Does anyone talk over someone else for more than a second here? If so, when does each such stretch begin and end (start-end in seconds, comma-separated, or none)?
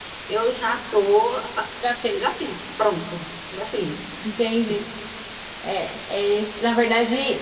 none